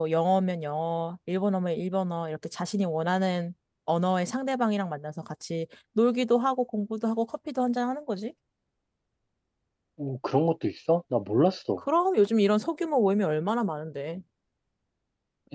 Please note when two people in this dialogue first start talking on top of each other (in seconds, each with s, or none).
none